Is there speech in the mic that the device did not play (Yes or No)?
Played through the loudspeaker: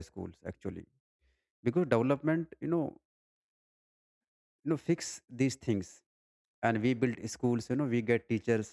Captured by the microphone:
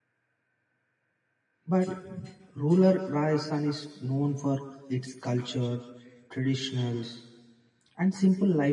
Yes